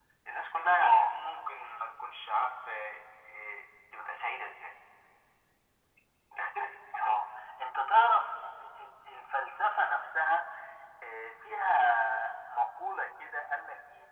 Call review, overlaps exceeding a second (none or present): none